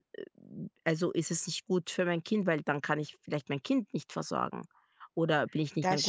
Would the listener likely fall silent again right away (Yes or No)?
Yes